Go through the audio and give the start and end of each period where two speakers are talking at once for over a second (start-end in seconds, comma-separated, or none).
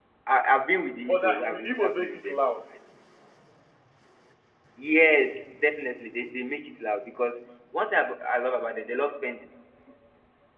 1.0-2.6